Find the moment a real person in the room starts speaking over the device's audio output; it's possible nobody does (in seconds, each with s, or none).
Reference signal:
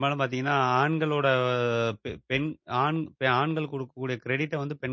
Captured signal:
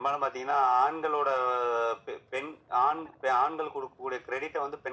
none